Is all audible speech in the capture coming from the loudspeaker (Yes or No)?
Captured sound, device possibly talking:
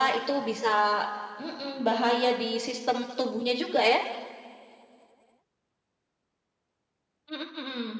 Yes